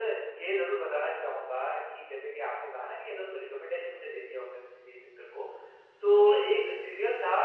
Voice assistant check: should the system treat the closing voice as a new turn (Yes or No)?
No